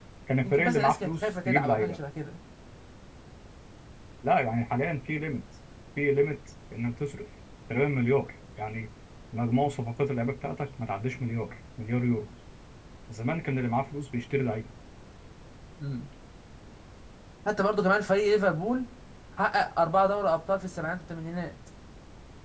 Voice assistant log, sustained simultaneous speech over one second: present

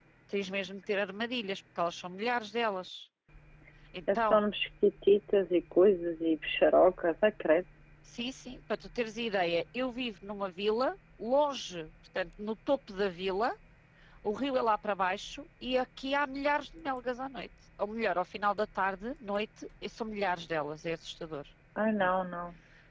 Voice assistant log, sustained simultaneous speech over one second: none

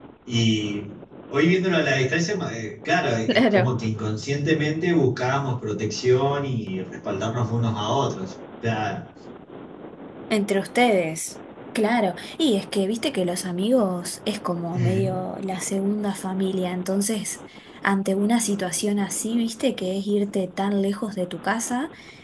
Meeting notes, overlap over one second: none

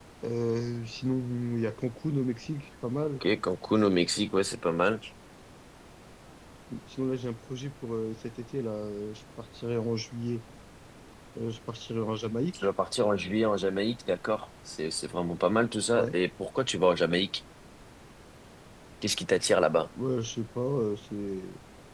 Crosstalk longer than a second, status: none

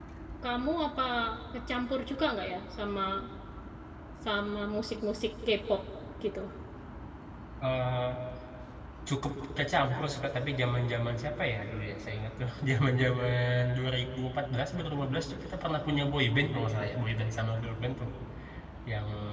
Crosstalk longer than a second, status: none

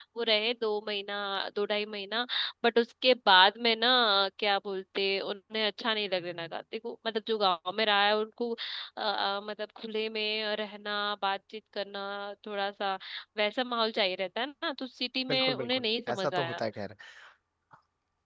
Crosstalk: present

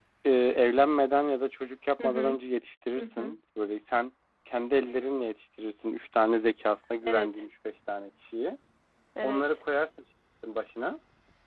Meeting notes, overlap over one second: none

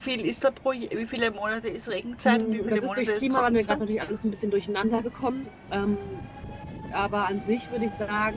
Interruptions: present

